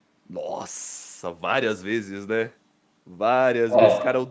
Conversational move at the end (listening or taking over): listening